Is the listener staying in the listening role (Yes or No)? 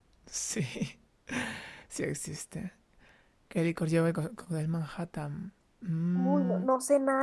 No